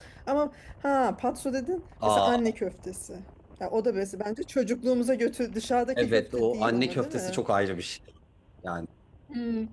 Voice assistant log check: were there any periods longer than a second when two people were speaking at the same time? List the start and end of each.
6.0-7.4

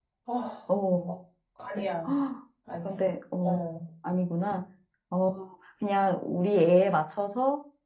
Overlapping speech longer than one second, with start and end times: none

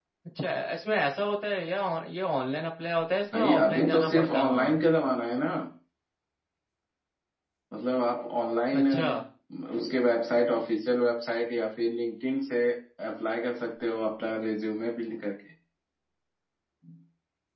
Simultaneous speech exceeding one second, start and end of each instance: 3.3-4.8

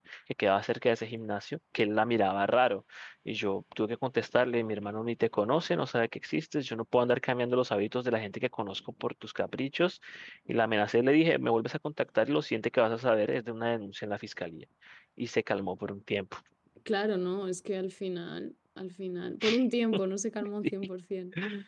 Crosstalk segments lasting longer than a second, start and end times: none

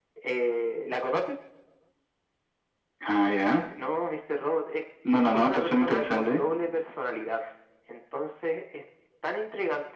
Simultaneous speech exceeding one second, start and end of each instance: 5.2-6.4

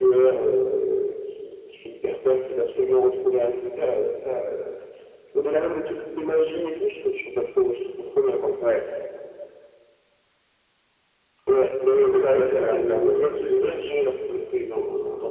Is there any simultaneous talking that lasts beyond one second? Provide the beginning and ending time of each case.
12.0-13.9

